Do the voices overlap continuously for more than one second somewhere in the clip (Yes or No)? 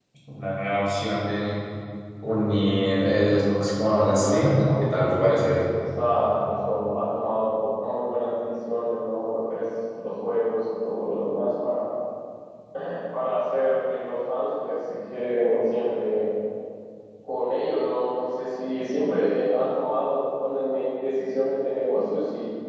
Yes